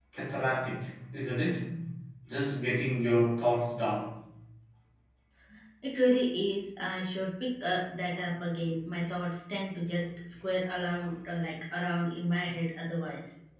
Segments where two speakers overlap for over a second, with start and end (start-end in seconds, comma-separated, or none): none